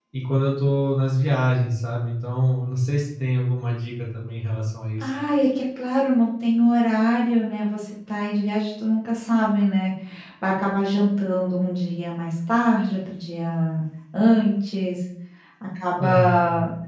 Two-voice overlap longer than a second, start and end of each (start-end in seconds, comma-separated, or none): none